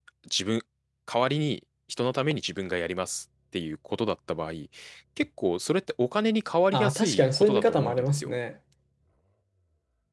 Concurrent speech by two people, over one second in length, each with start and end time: 6.7-8.3

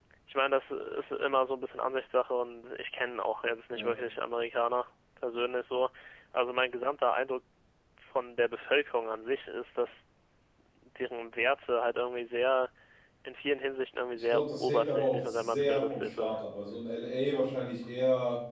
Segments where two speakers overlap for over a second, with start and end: 14.3-16.4

